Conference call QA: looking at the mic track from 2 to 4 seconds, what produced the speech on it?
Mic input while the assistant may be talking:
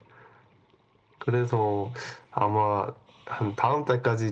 echo only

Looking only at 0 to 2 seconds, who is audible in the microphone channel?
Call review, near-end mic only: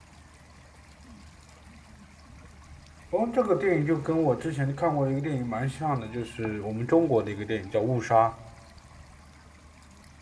neither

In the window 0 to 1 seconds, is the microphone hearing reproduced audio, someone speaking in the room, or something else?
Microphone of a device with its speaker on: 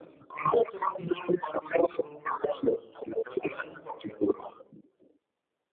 echo only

